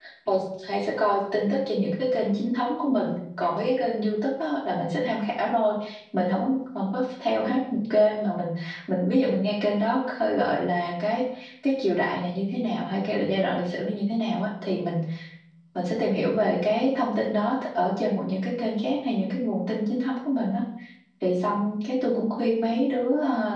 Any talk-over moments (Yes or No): No